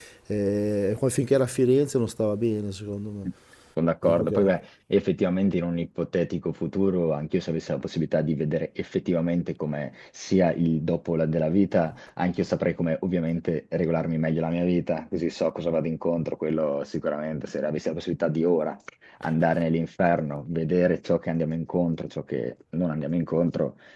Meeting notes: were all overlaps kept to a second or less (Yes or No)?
Yes